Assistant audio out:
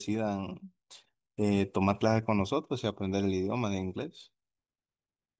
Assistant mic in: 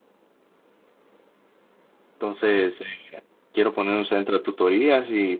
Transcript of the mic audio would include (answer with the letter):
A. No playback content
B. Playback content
A